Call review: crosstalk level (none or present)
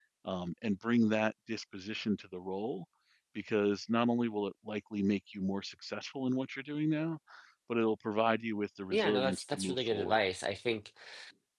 present